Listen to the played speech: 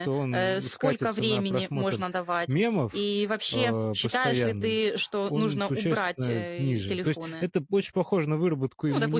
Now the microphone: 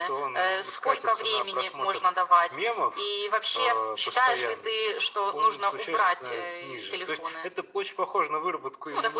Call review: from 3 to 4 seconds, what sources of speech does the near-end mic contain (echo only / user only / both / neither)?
echo only